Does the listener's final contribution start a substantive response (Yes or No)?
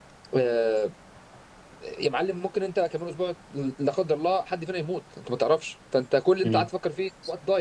No